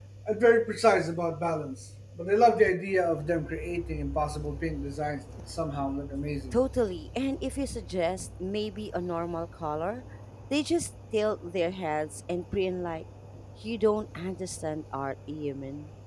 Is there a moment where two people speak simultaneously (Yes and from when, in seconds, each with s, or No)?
No